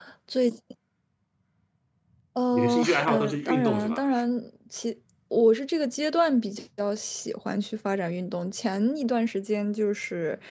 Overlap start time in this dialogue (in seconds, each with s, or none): 2.5 s